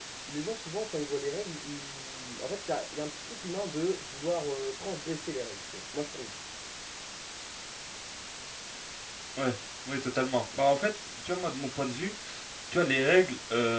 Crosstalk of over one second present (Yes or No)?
No